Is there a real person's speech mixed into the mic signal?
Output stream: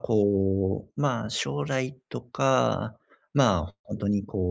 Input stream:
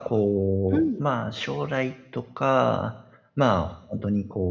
Yes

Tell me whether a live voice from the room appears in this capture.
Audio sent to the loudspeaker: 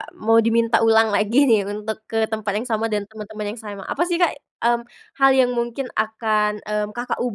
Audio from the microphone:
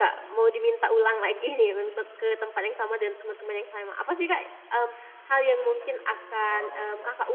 Yes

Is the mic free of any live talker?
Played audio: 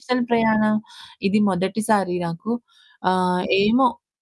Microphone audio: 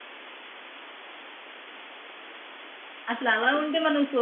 No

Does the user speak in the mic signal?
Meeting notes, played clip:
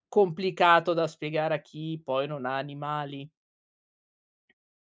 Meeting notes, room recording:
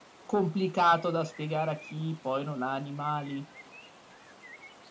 No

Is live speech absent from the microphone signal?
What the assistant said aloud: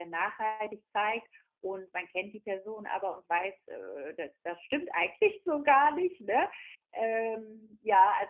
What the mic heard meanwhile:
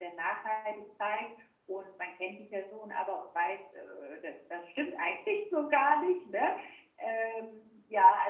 Yes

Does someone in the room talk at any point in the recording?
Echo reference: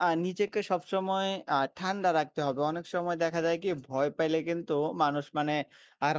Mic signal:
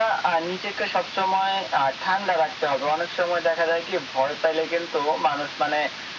No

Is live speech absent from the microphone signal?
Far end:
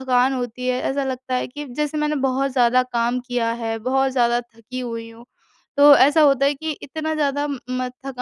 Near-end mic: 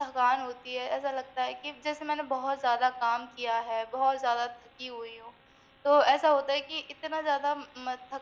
Yes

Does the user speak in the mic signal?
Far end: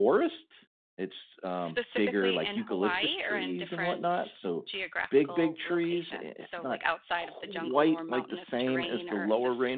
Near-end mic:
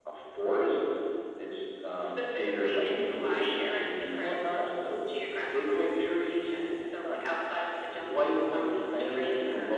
No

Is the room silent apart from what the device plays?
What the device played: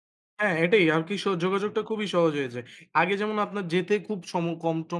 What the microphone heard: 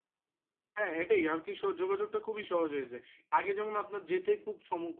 Yes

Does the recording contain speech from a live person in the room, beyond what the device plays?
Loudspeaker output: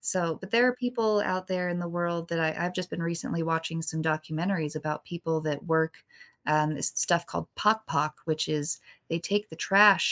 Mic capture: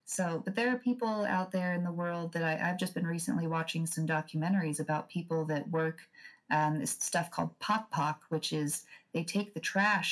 No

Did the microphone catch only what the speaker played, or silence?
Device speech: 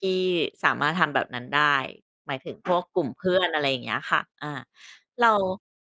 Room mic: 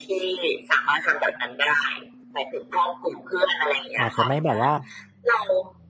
No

